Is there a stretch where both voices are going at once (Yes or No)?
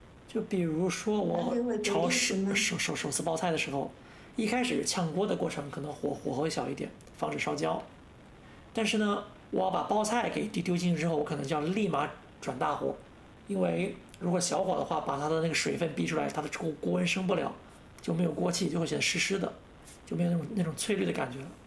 Yes